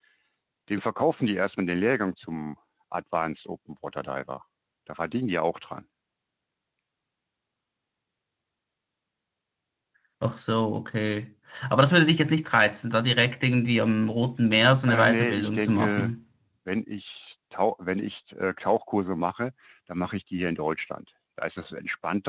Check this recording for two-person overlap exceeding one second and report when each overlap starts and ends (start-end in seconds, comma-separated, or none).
14.9-16.1